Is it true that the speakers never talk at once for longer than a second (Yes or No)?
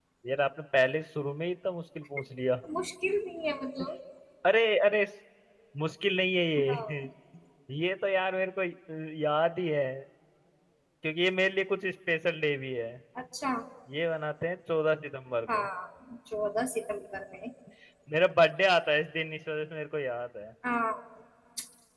Yes